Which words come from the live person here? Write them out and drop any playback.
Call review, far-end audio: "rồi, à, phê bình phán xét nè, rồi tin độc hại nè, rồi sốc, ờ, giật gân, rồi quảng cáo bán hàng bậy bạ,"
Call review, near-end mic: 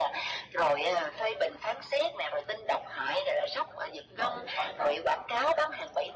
mở điện thoại ra,

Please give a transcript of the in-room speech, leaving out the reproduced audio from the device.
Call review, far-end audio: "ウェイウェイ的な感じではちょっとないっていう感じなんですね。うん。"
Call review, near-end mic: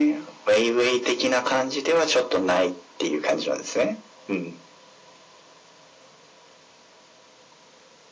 none

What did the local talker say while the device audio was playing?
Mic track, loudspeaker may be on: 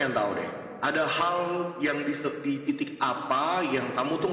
none

